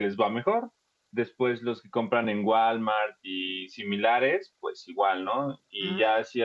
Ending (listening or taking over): listening